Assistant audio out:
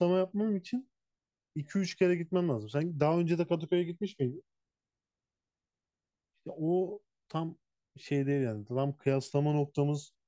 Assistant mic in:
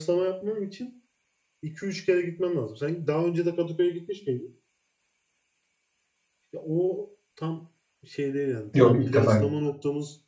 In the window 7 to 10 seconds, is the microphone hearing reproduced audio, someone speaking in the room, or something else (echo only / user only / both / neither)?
both